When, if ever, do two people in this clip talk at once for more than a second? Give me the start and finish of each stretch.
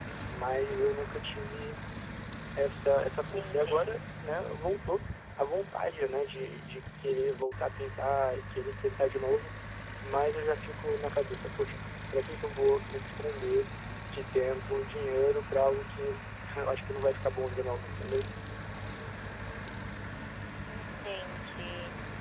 none

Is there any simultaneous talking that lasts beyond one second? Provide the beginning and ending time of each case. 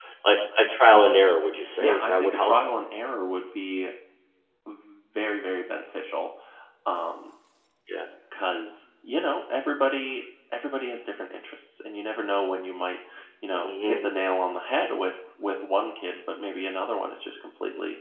0.9-2.5

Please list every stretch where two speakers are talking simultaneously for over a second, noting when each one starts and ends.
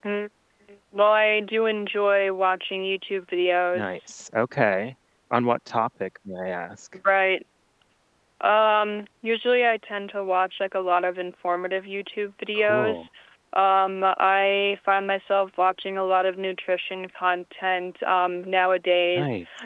none

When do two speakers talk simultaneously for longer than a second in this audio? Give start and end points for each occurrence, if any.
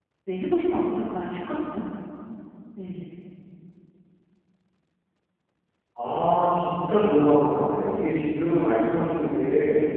none

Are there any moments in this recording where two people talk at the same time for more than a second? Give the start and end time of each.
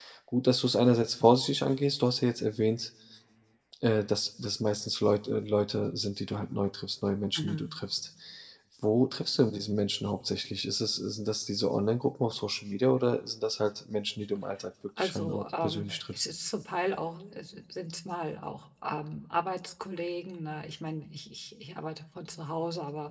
15.0-16.3

